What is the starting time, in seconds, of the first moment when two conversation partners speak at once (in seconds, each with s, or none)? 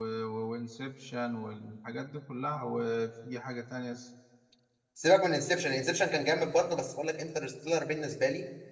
none